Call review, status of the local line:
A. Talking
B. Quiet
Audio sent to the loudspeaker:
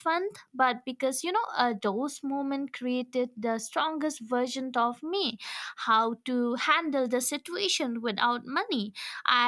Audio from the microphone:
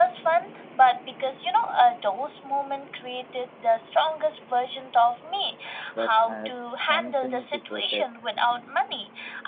A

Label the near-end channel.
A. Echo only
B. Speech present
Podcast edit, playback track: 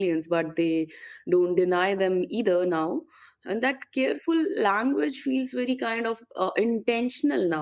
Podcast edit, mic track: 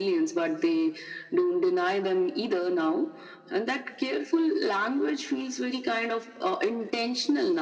A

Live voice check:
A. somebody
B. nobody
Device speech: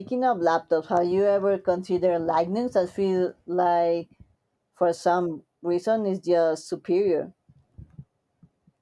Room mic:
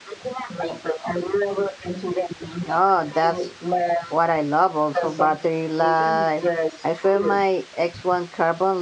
A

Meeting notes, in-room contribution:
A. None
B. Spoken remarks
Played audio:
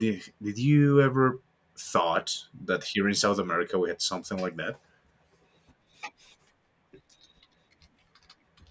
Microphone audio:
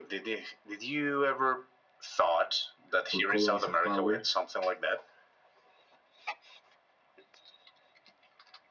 B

